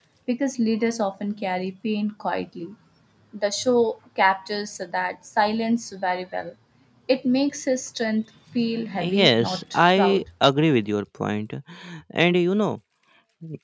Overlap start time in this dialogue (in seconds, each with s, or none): 9.0 s